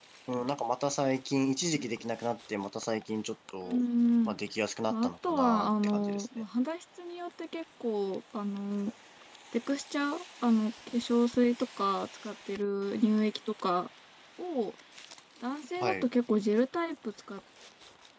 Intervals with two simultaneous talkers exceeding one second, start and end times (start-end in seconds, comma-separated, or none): 4.9-6.3